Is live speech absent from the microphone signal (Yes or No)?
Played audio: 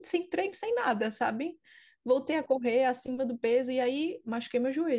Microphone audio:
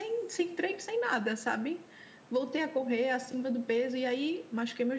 Yes